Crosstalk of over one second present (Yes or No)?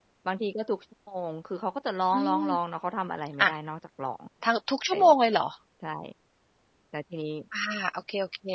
No